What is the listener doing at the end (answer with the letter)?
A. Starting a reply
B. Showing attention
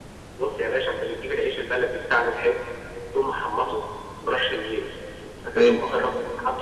B